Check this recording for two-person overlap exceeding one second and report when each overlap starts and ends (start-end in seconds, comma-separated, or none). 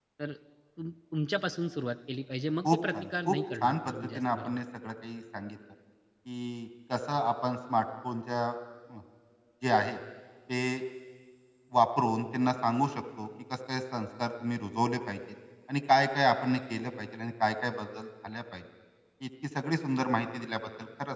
2.6-4.6